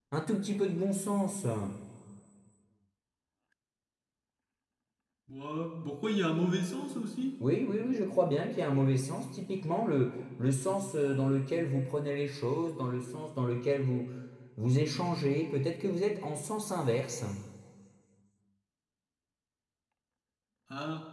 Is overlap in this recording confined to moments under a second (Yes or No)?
Yes